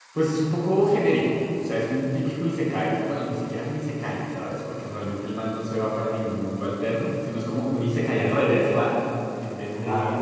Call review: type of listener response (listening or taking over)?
listening